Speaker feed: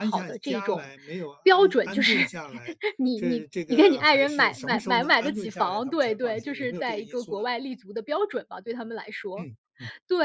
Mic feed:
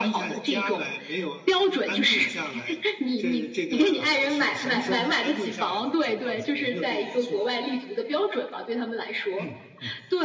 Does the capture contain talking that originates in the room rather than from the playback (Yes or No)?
No